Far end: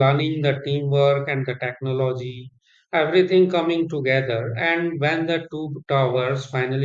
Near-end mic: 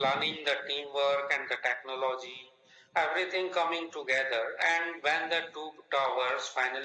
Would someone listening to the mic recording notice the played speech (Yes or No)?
Yes